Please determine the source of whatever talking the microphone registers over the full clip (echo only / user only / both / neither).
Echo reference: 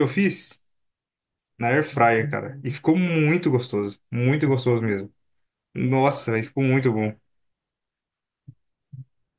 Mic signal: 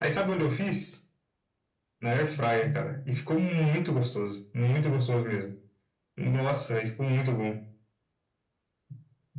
echo only